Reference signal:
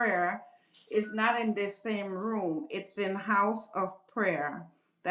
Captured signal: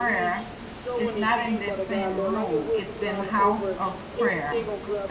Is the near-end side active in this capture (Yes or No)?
Yes